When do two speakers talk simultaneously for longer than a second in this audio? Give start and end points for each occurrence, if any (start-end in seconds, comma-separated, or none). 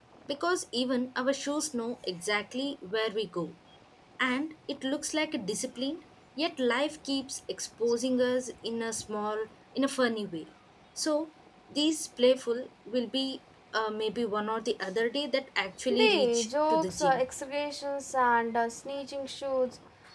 15.9-17.2